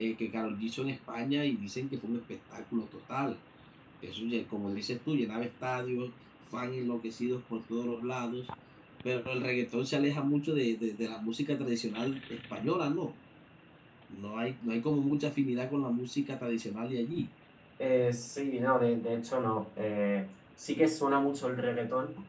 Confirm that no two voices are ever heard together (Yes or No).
Yes